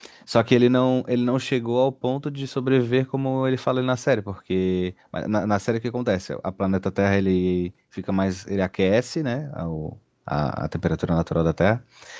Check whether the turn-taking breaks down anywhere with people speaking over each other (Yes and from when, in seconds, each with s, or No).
No